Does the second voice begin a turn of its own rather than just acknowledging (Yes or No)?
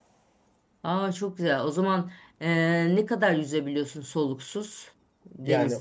Yes